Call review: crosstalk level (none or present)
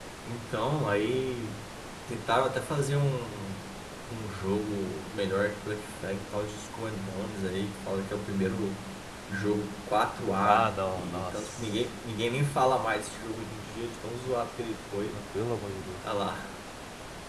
present